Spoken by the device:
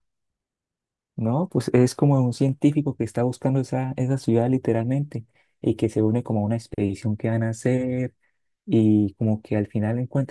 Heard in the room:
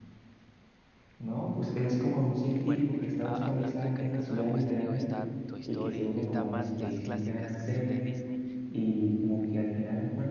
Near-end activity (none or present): present